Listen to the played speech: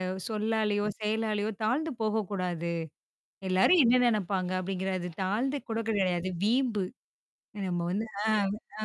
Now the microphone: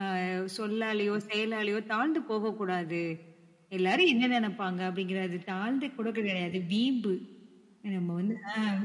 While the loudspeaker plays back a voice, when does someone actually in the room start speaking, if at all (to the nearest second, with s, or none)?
none